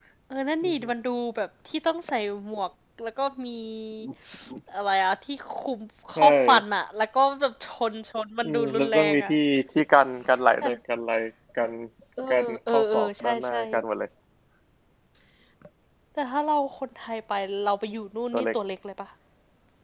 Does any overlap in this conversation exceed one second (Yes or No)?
Yes